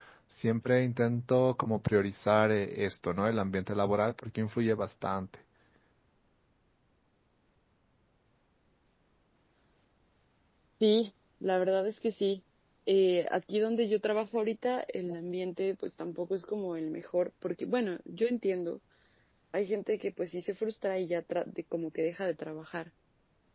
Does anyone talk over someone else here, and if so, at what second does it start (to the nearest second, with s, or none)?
none